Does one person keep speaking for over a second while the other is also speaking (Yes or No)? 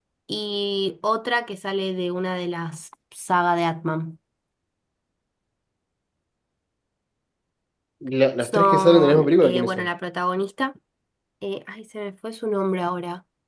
Yes